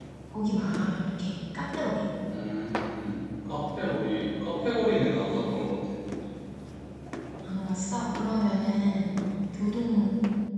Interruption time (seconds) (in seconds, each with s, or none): none